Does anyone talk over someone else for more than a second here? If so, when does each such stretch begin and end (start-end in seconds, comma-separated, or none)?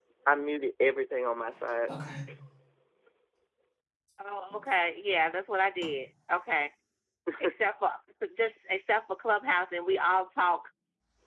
none